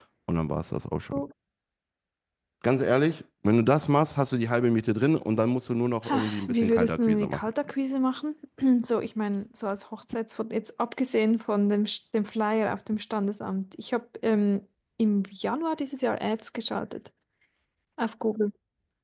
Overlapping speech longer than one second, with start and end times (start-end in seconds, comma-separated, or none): 6.1-7.5